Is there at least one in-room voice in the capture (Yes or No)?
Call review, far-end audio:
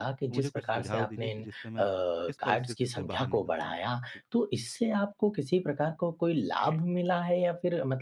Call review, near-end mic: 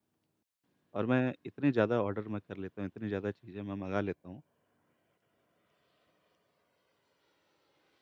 Yes